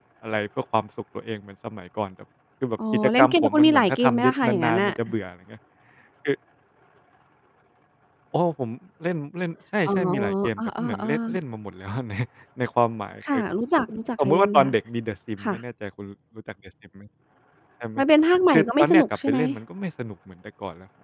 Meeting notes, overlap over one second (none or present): present